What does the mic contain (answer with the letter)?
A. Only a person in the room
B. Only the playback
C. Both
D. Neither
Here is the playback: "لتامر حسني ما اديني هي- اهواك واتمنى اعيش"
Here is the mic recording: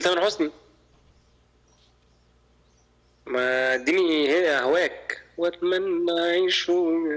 B